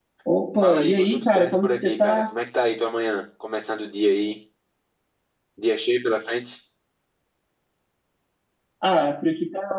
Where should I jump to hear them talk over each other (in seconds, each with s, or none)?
0.6 s